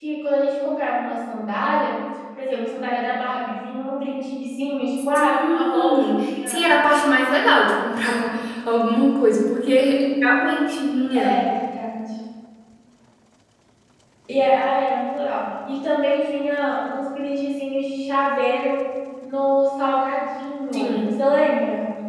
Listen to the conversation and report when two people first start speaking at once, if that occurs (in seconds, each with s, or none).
5.2 s